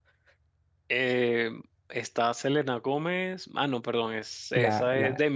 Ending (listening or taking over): taking over